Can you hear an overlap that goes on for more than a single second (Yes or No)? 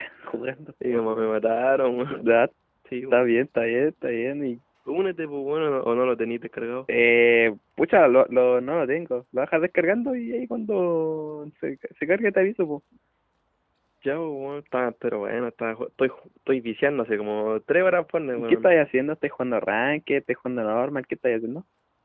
No